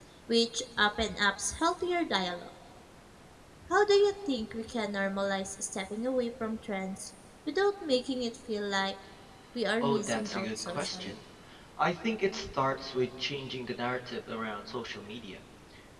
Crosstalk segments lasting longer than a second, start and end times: 9.8-11.1

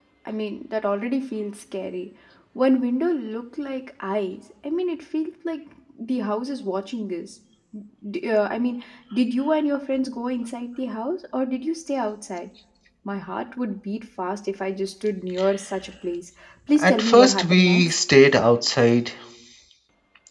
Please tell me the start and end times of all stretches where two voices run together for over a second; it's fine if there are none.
16.8-18.0

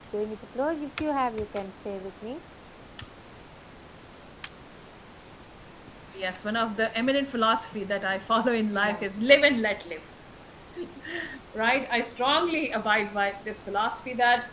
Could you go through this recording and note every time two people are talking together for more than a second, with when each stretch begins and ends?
none

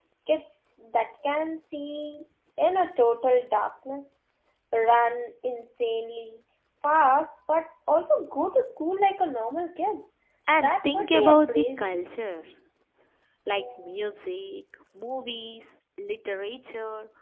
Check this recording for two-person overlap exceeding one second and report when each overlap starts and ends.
10.6-12.0

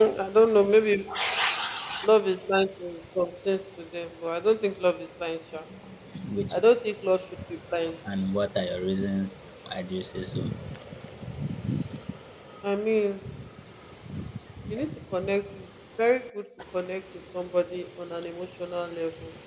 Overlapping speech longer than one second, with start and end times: none

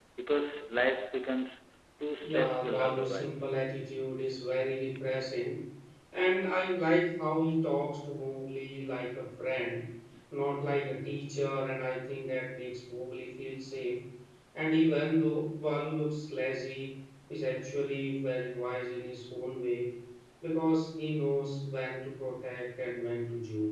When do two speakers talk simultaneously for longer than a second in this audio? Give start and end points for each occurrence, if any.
2.2-3.5

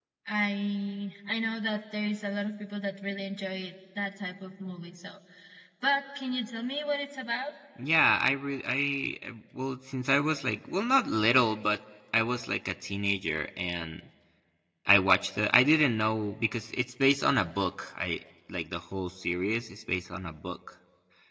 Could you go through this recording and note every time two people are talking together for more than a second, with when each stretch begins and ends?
none

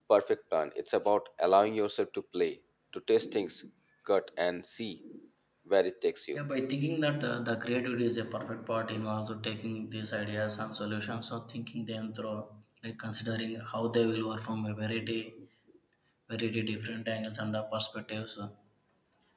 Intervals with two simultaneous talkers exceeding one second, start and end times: none

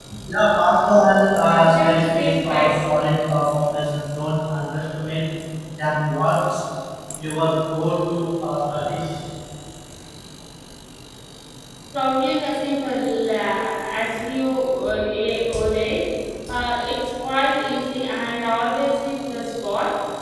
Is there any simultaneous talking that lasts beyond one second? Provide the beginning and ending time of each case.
1.5-2.7

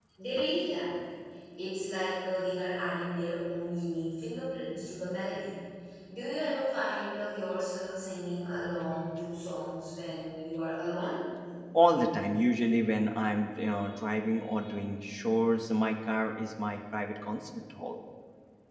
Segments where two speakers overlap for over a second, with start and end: none

